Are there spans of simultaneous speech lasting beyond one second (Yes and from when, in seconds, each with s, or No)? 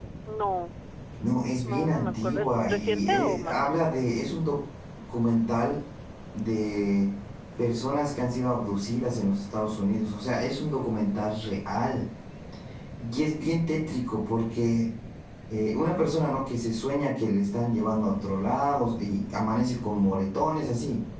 Yes, from 1.6 s